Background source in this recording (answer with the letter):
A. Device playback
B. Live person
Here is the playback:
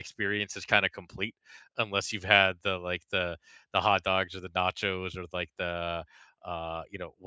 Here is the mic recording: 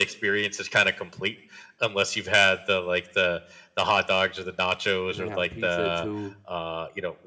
B